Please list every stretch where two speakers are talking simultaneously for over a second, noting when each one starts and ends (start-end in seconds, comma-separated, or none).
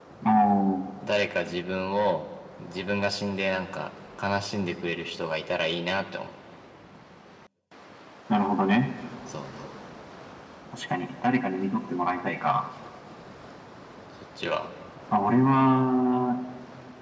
none